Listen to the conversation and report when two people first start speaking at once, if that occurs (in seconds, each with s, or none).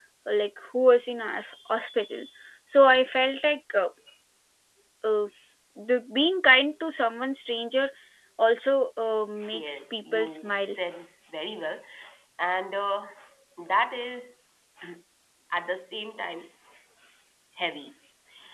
9.4 s